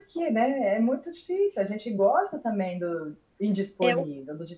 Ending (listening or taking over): taking over